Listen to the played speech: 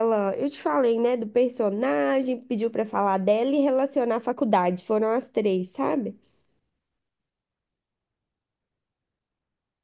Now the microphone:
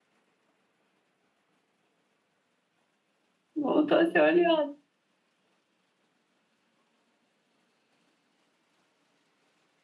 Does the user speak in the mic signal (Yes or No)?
Yes